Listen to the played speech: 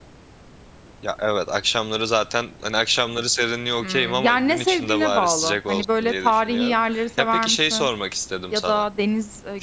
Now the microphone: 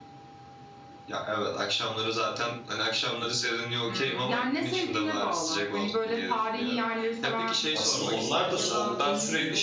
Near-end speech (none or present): present